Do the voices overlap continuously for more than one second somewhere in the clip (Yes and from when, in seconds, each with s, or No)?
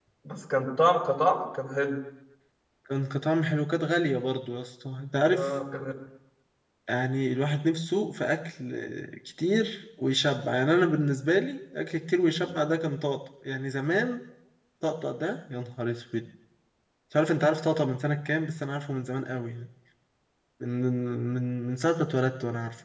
No